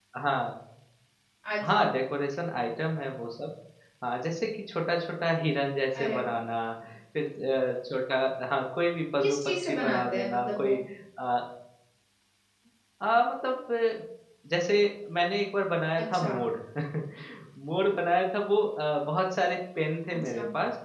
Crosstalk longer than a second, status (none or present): present